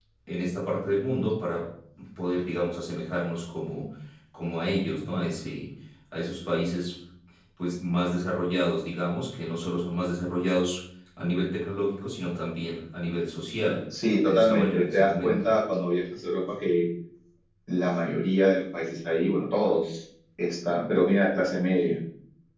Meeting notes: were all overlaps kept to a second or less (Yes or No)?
No